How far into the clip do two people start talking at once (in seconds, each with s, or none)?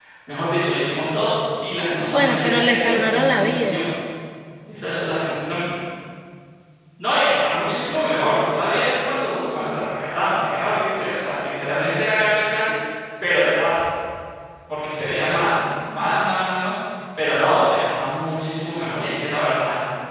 2.1 s